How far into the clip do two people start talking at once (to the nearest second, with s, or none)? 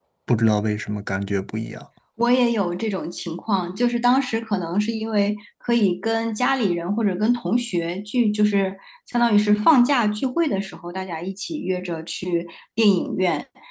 none